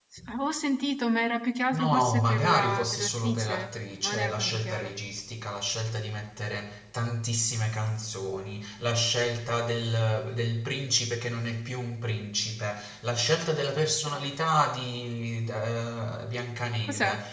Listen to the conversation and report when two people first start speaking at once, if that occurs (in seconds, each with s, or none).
1.7 s